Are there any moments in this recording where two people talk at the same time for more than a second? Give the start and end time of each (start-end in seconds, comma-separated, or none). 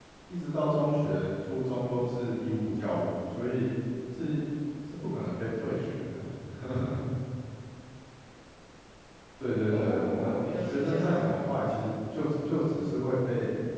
9.7-11.5